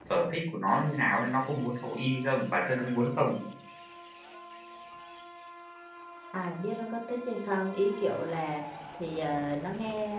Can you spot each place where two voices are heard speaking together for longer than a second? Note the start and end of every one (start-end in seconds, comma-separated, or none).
none